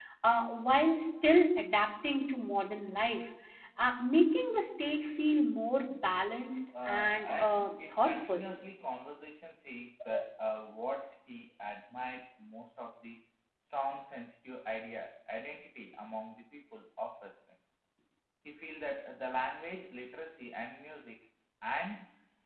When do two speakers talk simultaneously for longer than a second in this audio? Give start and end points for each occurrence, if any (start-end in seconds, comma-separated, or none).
6.8-8.4